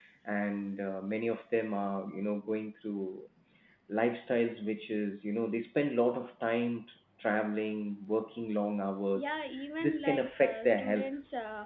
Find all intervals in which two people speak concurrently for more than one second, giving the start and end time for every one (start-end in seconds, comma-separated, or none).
9.8-11.2